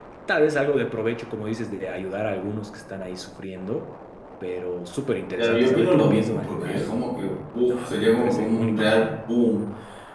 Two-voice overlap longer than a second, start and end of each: 5.4-7.0, 7.7-9.0

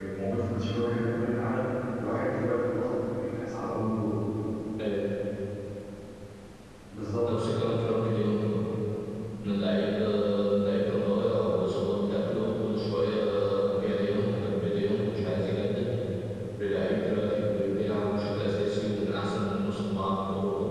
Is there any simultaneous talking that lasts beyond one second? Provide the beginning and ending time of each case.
none

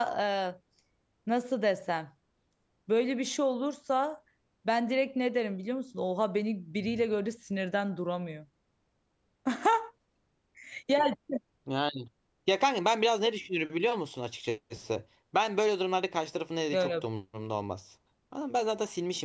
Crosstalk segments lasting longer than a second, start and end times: none

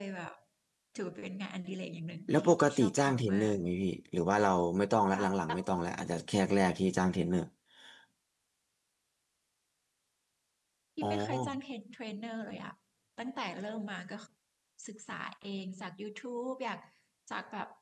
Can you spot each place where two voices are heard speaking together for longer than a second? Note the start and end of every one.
2.3-3.5

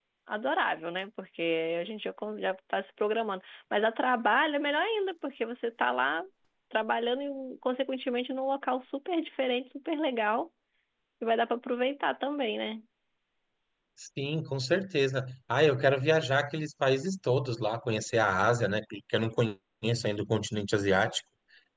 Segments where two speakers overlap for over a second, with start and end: none

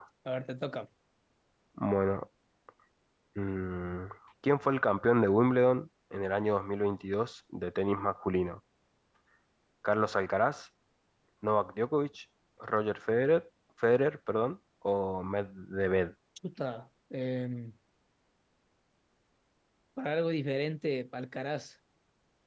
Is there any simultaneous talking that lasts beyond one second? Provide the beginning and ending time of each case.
none

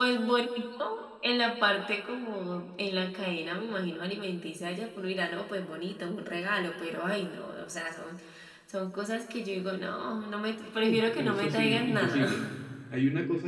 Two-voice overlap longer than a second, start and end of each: 10.8-12.3

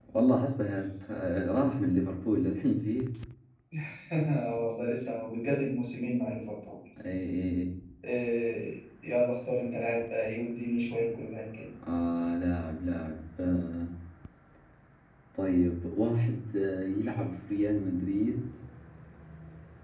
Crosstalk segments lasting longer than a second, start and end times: none

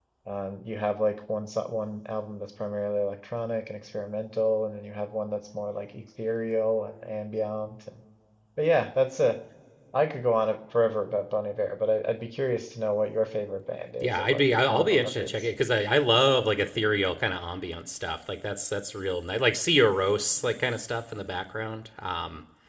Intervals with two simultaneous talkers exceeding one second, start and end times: 14.0-15.3

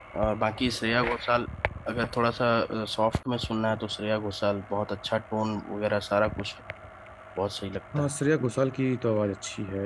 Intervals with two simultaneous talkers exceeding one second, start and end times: none

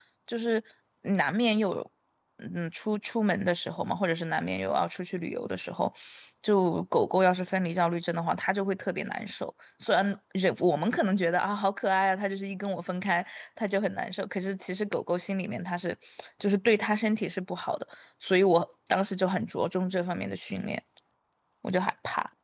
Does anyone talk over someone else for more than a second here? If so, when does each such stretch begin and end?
none

